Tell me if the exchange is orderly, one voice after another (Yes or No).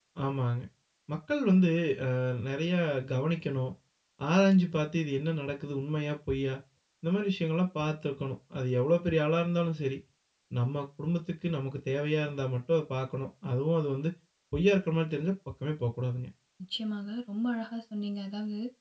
Yes